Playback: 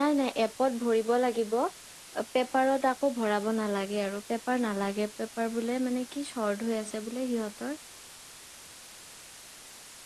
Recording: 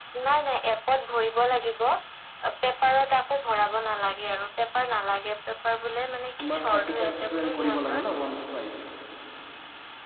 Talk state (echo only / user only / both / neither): both